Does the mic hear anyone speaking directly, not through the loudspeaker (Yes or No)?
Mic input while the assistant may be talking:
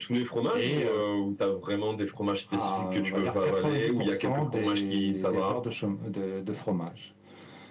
No